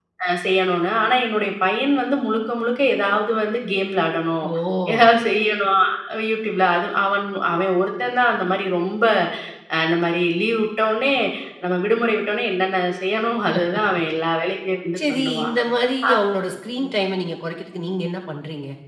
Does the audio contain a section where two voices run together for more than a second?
No

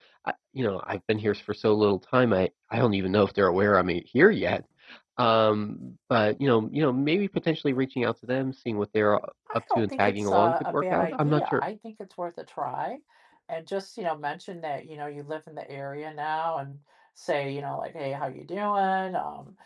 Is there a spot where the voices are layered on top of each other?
Yes, from 9.5 s

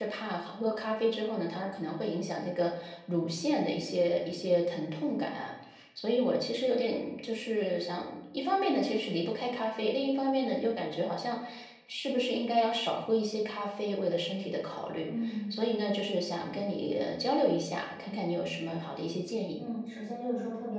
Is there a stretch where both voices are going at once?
No

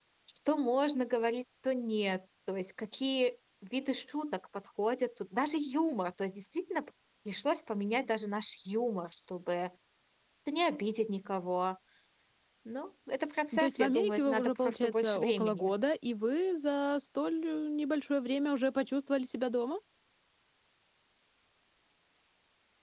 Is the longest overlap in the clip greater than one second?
Yes, from 13.5 s

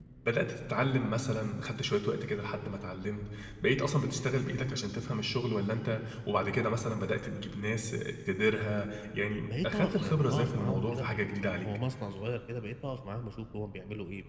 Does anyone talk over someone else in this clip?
Yes, from 9.5 s

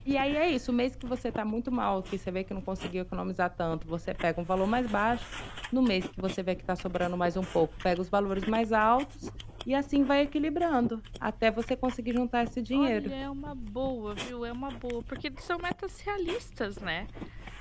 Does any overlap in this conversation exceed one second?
No

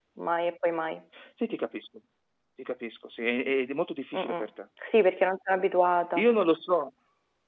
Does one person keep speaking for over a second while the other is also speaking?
No

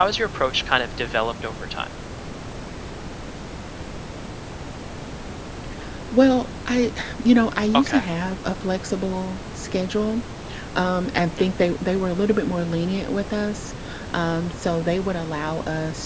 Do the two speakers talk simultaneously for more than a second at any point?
No

